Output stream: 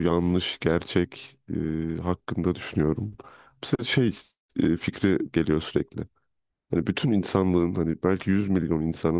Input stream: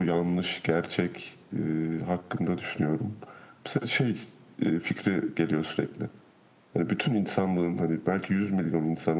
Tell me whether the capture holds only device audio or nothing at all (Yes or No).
Yes